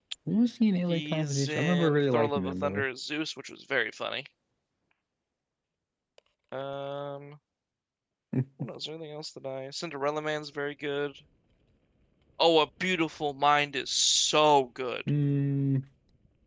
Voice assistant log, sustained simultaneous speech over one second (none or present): present